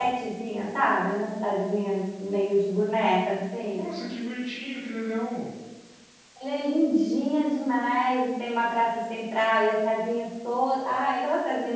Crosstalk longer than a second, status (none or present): none